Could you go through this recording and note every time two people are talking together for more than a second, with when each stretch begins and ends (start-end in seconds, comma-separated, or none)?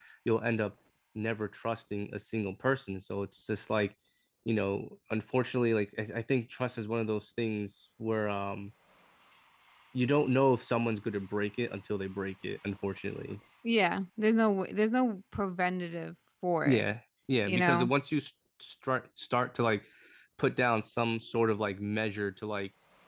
none